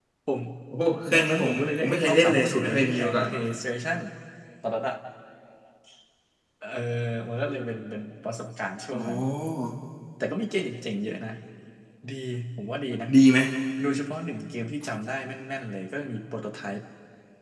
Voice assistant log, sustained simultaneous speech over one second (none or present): present